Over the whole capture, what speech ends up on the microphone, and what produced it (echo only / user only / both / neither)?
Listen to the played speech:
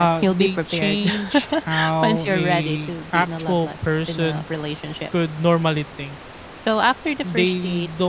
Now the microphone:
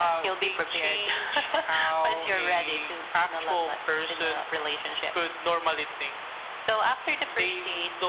echo only